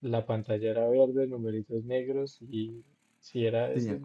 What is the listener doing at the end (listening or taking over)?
listening